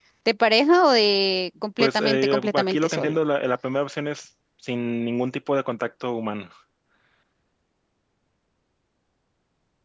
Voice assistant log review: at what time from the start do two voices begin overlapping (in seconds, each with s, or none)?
1.8 s